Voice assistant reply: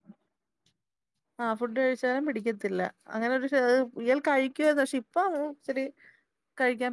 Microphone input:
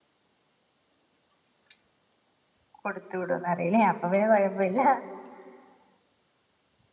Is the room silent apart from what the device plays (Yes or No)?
No